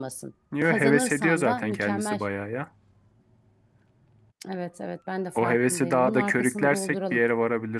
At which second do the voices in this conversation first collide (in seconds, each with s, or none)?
0.6 s